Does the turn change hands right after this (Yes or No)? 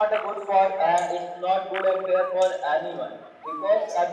No